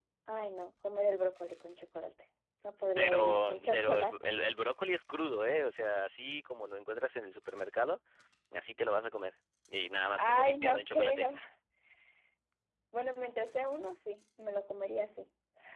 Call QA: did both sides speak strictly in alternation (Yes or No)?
No